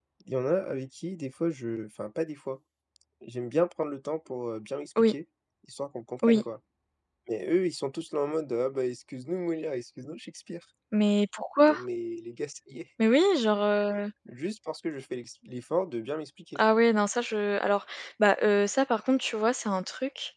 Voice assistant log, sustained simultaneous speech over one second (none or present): none